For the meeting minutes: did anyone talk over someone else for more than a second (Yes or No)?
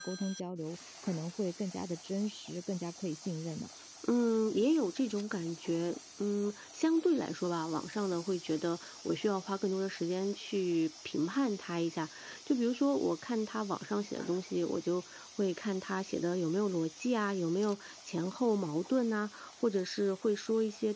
No